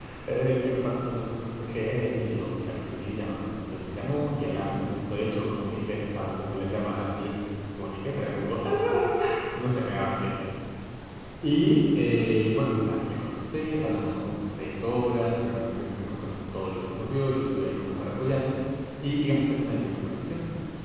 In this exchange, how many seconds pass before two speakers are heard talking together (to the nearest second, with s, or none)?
none